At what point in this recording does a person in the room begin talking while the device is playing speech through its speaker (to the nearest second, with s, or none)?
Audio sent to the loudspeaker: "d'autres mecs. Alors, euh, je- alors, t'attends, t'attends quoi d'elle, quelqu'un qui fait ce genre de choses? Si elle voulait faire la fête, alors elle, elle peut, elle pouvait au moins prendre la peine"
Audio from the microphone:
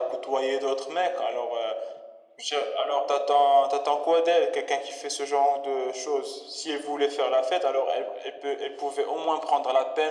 none